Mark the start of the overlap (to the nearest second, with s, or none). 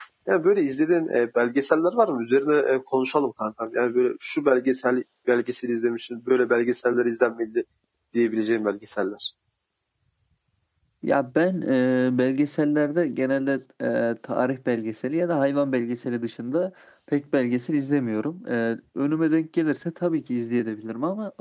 none